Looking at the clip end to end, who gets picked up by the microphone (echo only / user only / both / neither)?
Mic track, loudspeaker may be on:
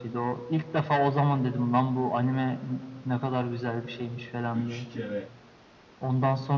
both